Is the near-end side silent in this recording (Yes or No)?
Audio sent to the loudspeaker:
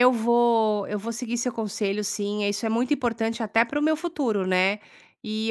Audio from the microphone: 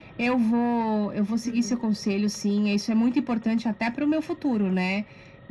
No